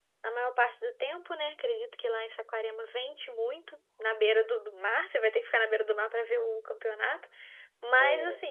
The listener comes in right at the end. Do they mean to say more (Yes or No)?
No